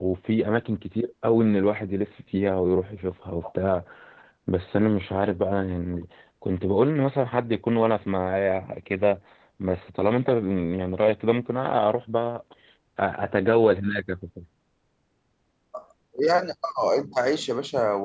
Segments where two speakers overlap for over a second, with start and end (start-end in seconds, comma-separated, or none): none